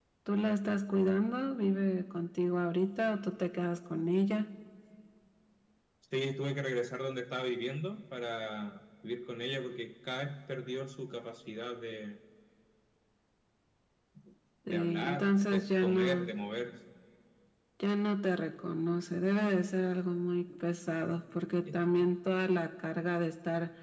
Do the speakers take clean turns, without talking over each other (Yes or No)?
No